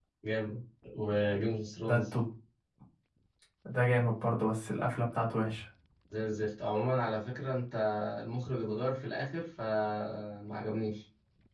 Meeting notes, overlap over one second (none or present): none